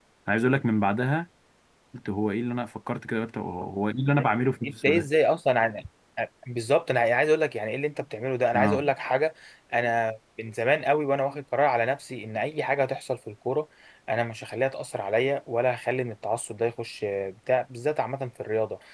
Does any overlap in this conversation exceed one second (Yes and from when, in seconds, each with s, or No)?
No